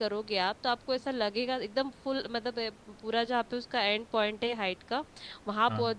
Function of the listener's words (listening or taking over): listening